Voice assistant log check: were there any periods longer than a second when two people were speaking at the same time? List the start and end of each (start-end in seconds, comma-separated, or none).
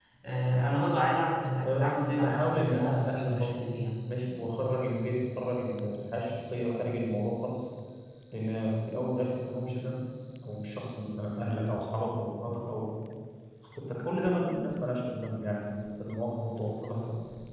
1.6-3.8